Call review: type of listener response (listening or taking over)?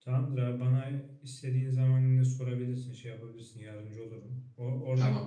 listening